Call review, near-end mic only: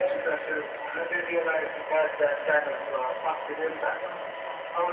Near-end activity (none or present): present